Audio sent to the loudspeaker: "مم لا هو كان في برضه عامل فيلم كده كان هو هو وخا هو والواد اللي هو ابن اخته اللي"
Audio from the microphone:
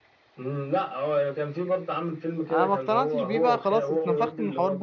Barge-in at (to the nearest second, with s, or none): 2 s